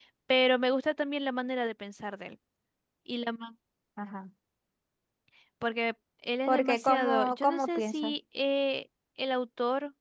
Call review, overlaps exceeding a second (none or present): present